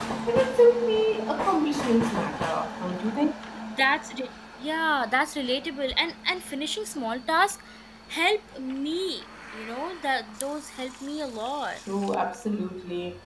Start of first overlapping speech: none

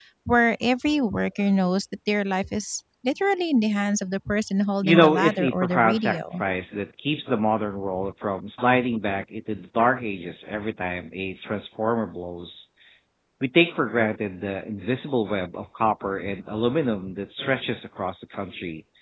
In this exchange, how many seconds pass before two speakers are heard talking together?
5 s

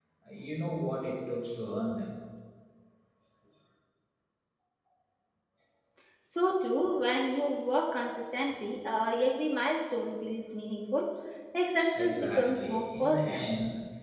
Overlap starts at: 12 s

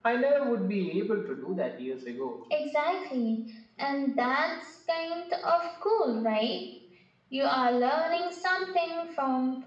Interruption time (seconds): none

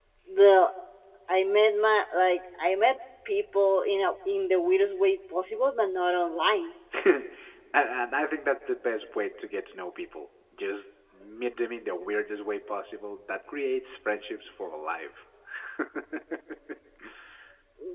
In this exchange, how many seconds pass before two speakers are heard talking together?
none

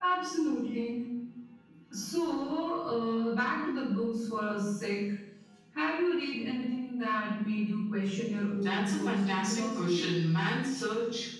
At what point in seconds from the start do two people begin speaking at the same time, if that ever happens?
9 s

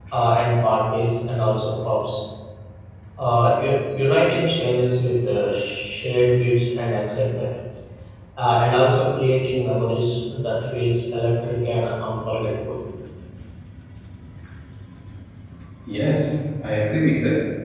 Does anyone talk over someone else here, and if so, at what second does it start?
none

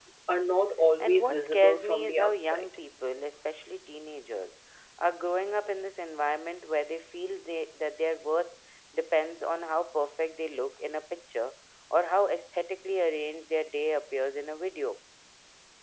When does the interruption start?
1 s

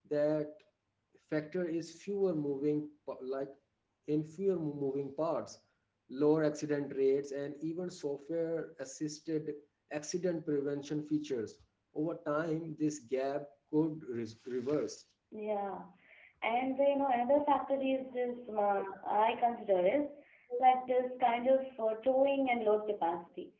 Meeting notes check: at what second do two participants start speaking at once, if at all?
none

